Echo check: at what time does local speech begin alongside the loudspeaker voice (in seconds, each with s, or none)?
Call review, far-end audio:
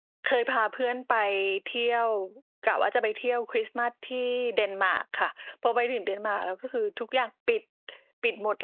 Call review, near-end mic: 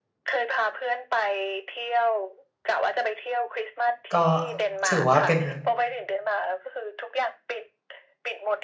4.1 s